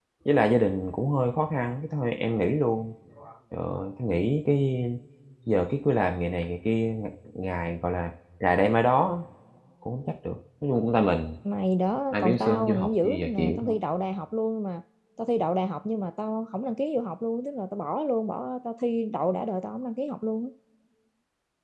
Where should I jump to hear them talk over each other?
12.1 s

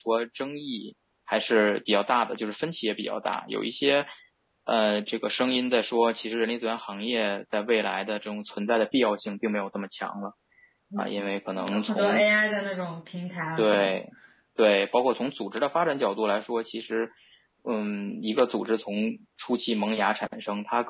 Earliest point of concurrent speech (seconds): 11.0 s

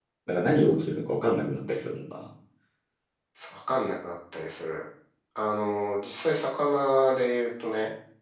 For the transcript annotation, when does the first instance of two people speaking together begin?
none

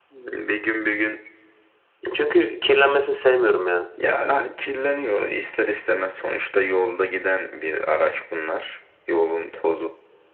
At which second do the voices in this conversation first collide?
none

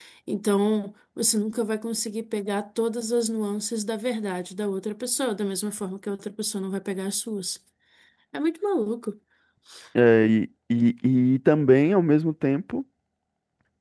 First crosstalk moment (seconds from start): none

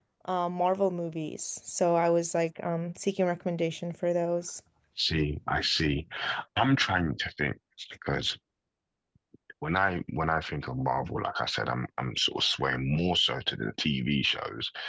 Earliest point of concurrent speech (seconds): none

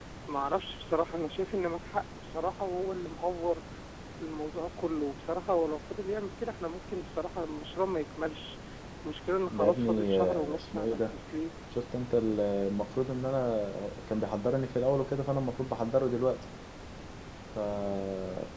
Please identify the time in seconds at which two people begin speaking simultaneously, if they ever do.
9.5 s

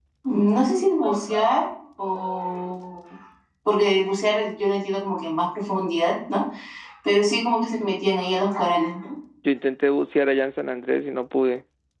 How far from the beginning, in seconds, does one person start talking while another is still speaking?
none

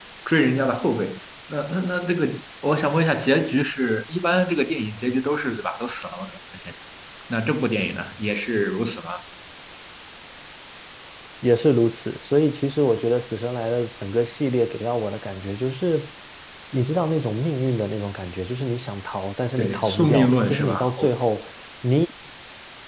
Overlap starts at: 19.6 s

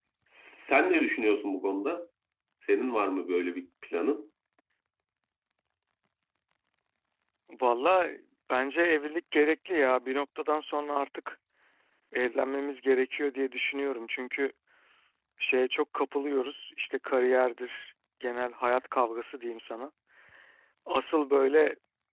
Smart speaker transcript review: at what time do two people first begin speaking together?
none

